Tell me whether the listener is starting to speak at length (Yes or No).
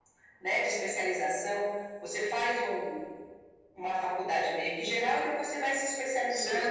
No